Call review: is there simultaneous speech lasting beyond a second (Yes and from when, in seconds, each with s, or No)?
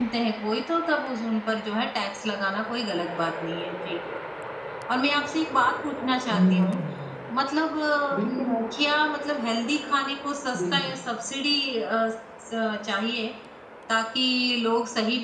No